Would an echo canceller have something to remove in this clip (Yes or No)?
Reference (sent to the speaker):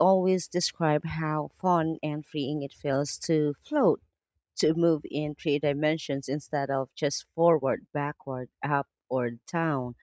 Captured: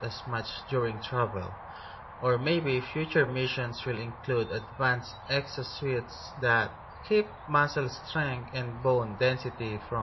No